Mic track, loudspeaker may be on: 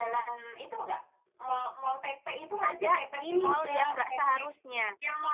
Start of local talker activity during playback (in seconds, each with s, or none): 2.6 s